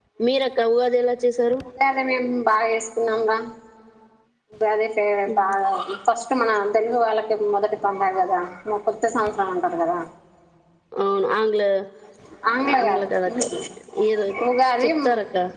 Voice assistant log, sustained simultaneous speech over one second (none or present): none